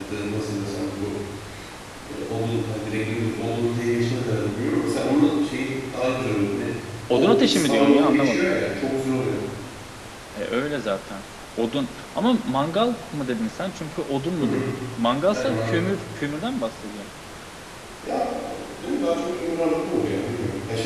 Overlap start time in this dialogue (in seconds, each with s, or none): 7.1 s